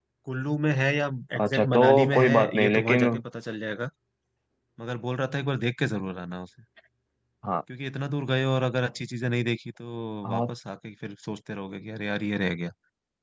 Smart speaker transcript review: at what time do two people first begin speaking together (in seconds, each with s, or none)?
1.4 s